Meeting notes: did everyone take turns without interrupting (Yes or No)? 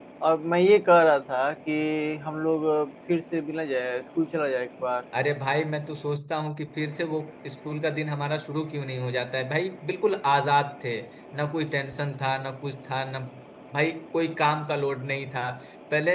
Yes